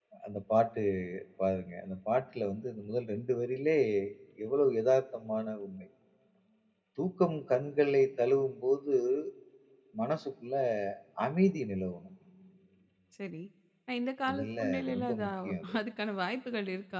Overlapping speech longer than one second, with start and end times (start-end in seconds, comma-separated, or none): 14.3-15.5